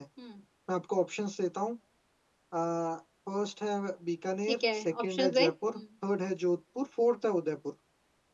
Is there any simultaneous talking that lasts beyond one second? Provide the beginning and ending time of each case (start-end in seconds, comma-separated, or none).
4.5-5.8